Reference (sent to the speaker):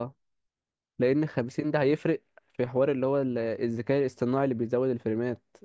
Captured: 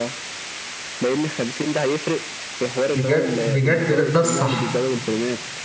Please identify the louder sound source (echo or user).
user